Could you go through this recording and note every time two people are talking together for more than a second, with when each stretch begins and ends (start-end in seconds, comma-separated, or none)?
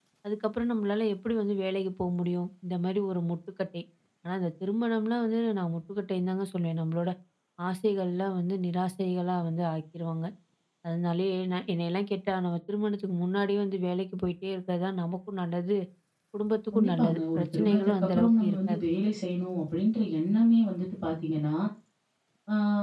16.7-18.8